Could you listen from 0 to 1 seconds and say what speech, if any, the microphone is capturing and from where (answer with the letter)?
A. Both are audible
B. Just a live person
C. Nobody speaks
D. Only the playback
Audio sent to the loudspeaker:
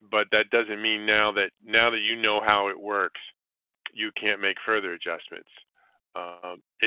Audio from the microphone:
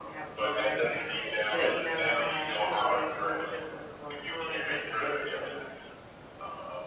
A